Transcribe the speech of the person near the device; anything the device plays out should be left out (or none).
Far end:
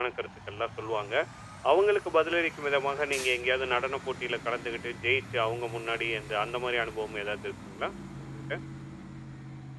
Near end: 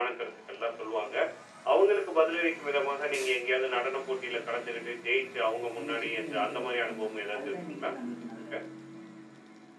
என்ன சுத்தி வந்துட்டு வச்சுப்பேங்க. அதுதான் என்னைக்குமே நம்மளுக்கு நல்லது.